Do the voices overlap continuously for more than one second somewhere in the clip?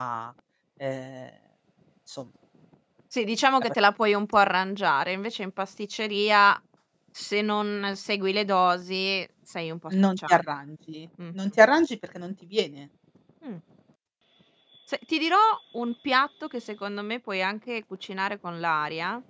No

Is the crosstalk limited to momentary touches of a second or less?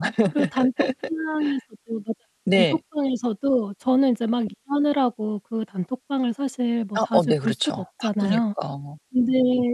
No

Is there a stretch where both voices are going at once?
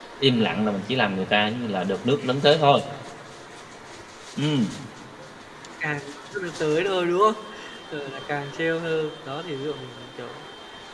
No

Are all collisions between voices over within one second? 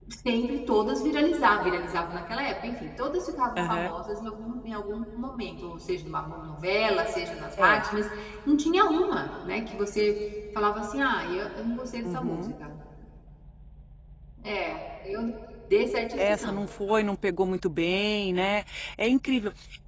Yes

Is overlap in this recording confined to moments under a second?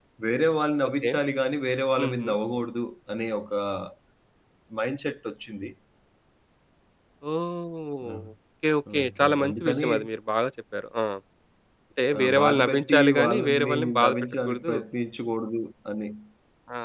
No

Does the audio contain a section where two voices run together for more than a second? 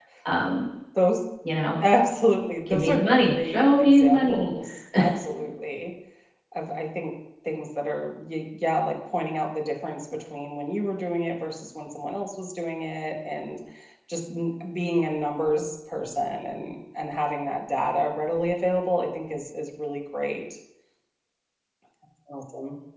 Yes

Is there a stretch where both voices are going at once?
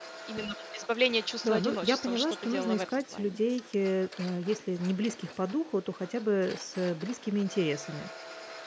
Yes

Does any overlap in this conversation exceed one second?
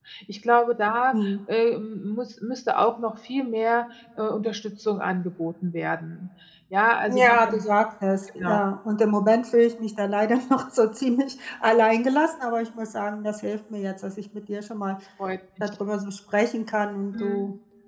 No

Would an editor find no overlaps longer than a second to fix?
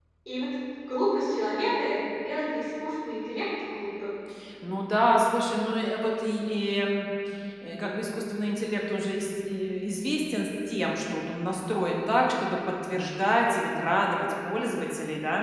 Yes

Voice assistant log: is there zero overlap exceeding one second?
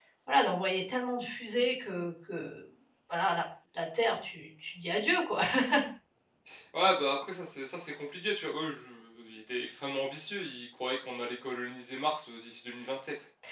Yes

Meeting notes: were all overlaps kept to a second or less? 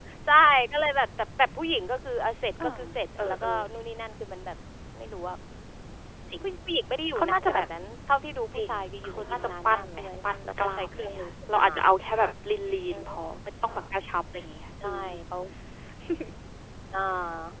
No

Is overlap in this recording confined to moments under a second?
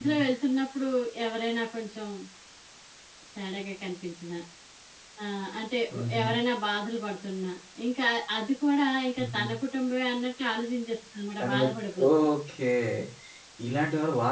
Yes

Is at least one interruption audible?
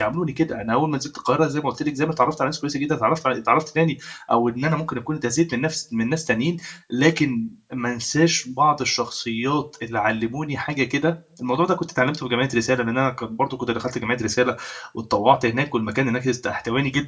No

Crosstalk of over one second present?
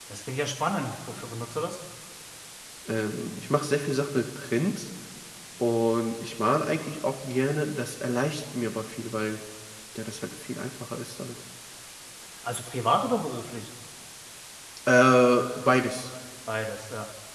No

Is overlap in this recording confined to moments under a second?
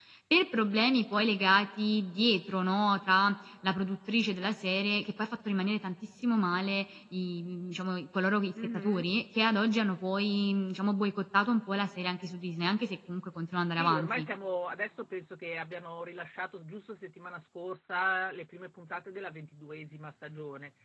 Yes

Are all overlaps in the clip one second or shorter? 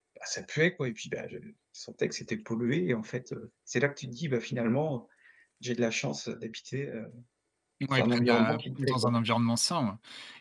No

